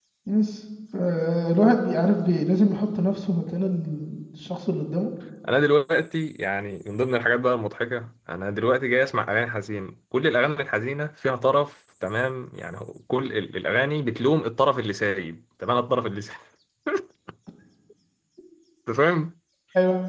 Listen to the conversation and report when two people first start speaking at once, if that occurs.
none

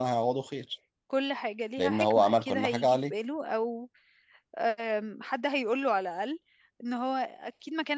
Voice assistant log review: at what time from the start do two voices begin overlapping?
1.8 s

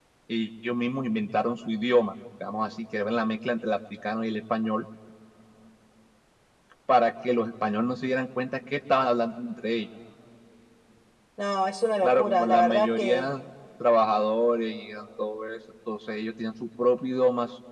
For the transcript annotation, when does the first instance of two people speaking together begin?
12.0 s

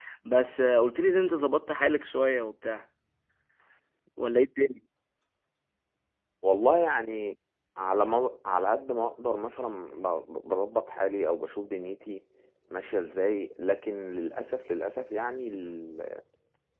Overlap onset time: none

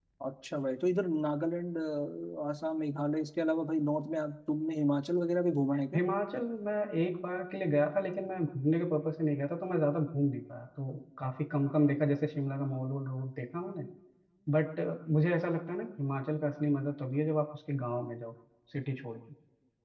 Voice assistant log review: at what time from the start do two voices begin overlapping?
none

